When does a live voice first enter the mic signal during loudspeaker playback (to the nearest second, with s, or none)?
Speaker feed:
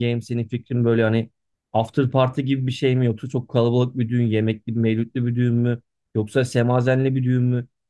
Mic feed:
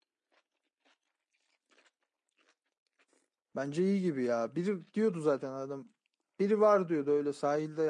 4 s